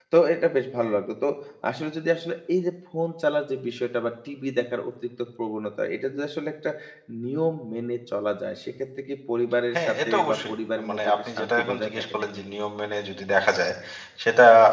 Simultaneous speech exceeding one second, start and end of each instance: 9.7-12.2

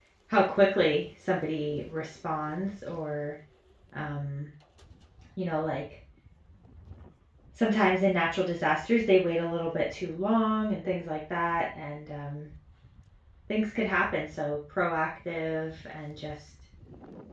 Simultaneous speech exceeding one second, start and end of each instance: none

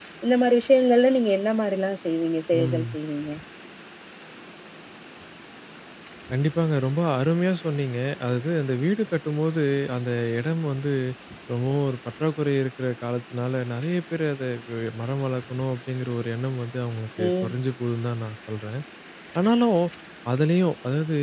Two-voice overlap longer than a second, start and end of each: none

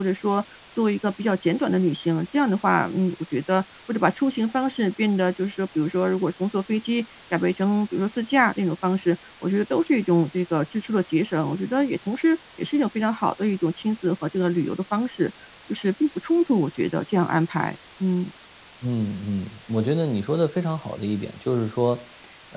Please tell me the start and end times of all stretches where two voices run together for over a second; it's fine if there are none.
none

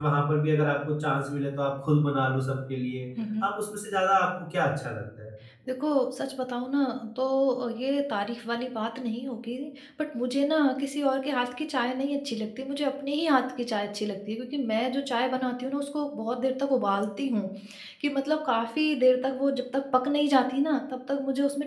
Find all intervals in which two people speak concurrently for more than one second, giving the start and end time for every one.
none

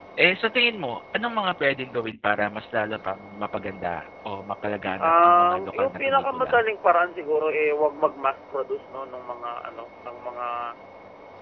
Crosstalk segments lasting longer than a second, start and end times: 5.0-6.5

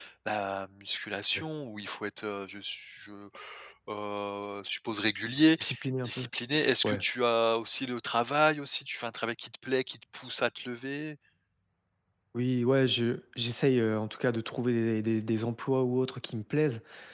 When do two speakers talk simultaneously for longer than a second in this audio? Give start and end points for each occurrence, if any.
none

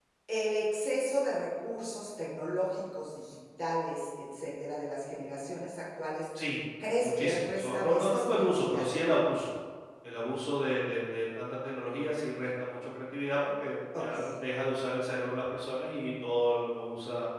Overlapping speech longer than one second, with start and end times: 7.0-8.9

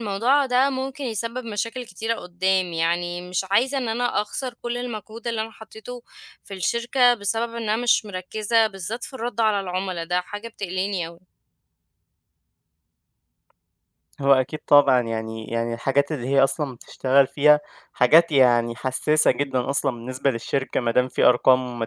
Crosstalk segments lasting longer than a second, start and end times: none

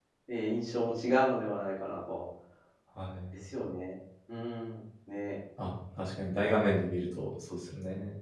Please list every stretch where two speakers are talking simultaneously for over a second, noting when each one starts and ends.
none

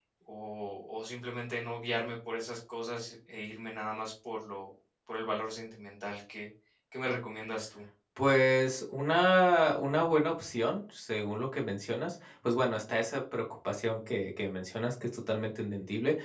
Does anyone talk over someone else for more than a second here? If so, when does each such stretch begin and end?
none

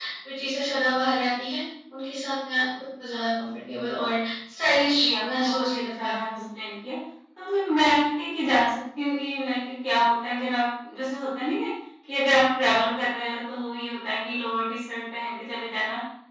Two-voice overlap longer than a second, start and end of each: 5.0-6.3

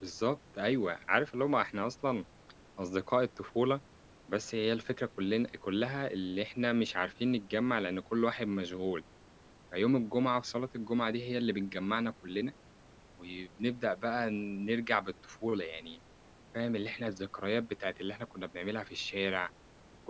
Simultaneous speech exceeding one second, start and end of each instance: none

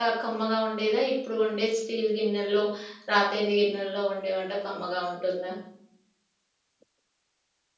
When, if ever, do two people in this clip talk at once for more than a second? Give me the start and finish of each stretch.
none

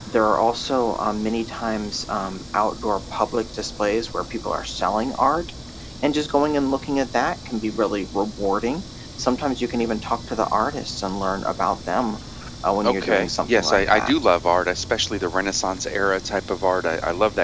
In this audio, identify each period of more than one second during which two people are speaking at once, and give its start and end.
12.8-14.1

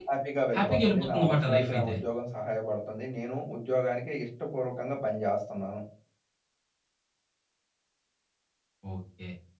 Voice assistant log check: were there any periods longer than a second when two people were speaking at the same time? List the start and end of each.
0.6-1.9

